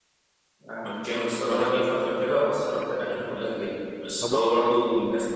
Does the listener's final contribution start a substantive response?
No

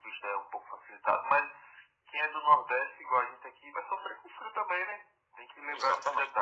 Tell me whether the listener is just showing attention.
No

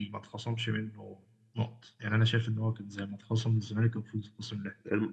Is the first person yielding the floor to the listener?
Yes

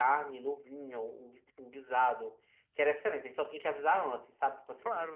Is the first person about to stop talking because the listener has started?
No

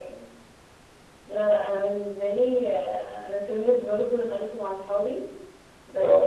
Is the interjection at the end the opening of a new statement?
No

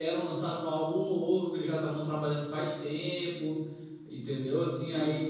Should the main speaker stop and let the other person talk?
No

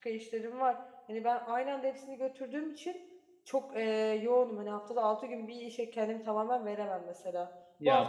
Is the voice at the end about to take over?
No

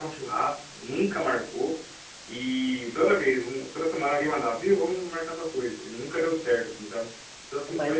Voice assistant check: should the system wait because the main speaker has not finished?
No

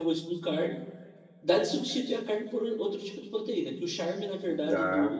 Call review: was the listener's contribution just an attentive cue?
Yes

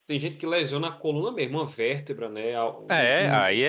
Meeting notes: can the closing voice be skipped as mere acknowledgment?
No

